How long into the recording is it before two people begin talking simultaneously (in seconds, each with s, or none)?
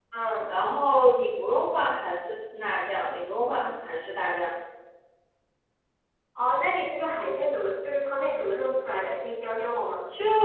none